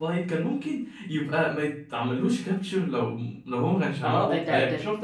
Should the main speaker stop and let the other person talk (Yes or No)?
Yes